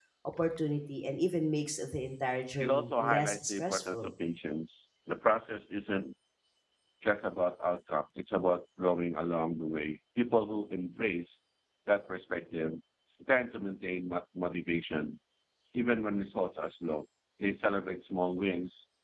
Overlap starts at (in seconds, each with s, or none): 2.6 s